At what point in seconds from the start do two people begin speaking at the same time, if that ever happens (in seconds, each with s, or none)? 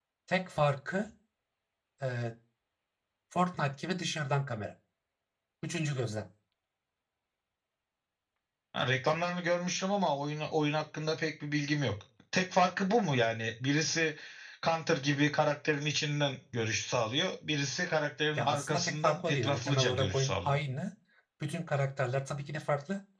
18.4 s